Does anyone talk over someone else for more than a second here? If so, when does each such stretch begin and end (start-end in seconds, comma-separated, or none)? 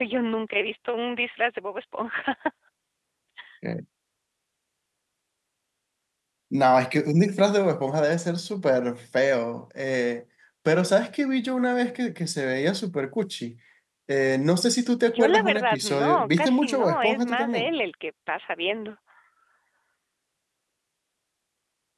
15.1-17.7